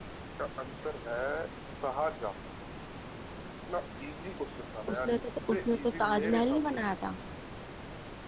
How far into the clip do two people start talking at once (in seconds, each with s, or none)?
4.9 s